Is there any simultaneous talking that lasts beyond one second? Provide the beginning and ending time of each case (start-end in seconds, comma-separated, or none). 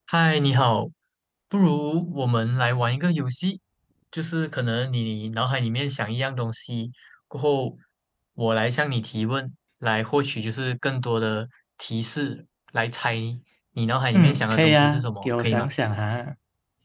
14.1-15.7